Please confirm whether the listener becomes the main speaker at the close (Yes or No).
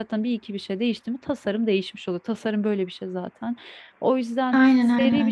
No